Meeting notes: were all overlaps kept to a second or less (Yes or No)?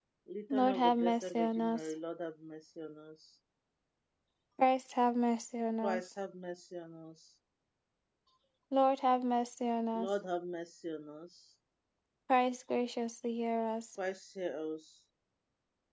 No